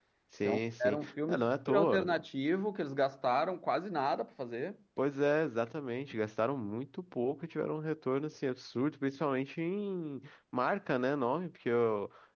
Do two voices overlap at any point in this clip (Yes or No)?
Yes